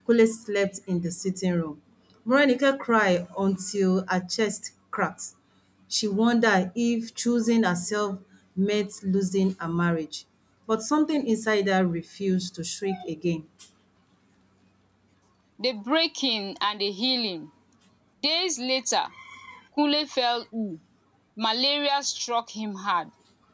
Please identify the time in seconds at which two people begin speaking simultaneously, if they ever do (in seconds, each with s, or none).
none